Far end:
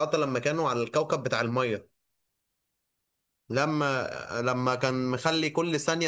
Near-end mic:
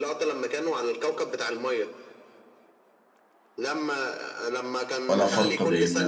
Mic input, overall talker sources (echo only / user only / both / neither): both